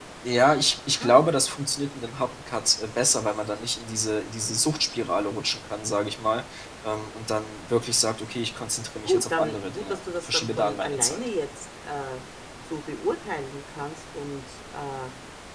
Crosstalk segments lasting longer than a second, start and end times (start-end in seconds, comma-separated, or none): 9.0-11.2